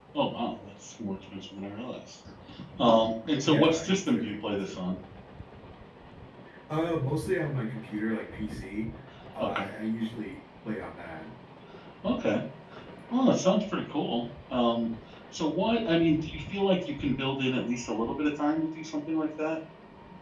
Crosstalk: present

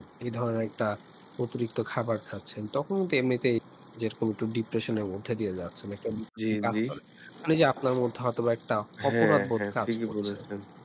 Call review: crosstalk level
present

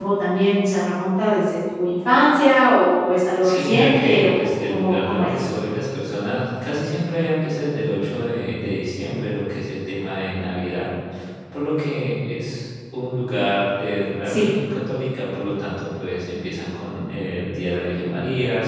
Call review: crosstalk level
present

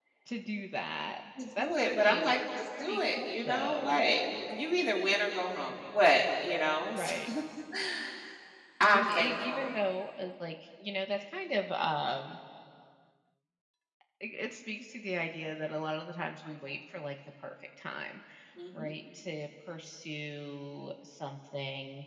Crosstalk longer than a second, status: present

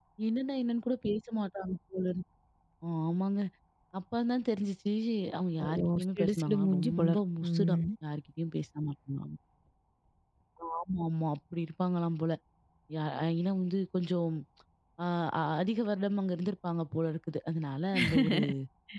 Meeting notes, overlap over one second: present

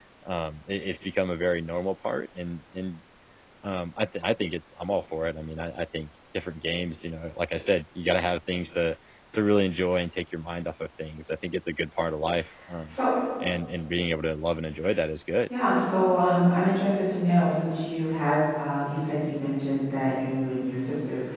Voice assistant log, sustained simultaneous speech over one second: none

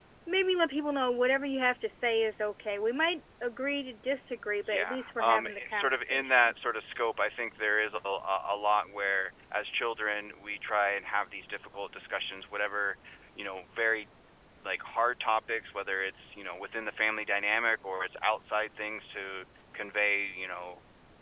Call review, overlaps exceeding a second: present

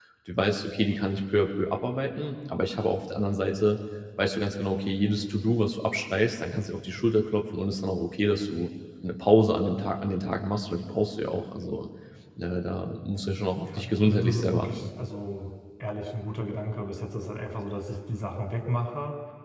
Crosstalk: present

